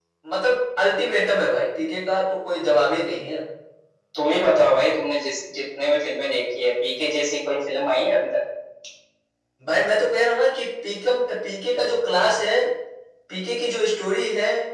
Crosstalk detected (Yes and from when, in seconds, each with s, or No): No